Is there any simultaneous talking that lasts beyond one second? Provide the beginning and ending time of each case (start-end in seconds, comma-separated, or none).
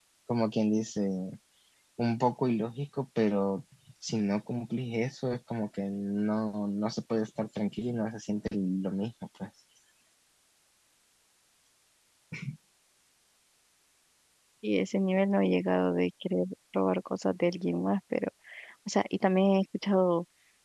none